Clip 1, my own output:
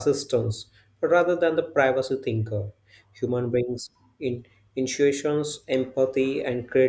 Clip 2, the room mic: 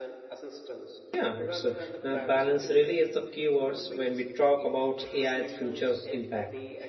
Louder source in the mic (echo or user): user